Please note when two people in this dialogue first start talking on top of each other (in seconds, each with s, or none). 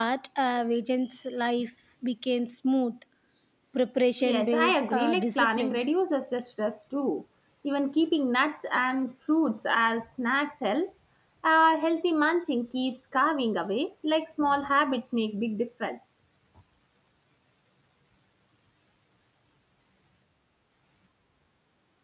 4.2 s